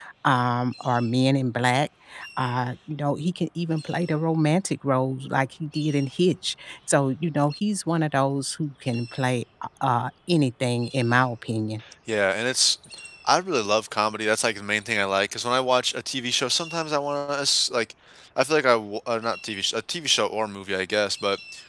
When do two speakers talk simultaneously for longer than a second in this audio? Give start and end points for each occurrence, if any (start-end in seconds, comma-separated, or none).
none